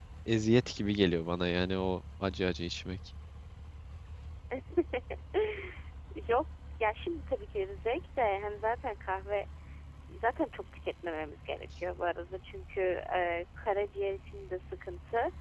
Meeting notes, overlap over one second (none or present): none